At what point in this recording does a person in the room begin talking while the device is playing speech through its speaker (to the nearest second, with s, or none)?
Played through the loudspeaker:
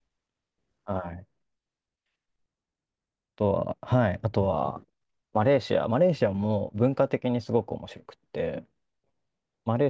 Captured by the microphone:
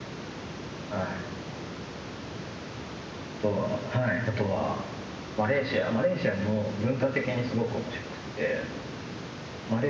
none